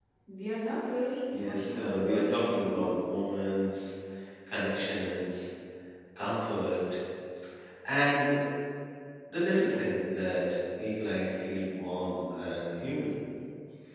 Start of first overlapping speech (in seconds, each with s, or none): 1.3 s